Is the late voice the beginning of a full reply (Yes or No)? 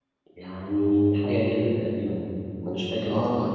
No